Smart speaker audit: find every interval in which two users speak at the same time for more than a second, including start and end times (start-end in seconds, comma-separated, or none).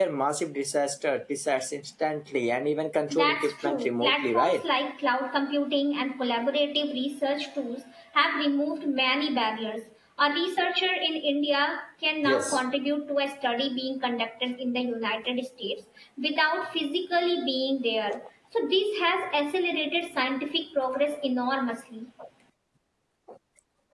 3.1-4.6